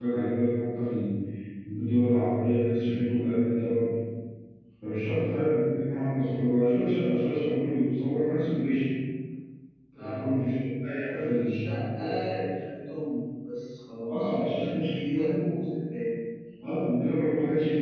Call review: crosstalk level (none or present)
present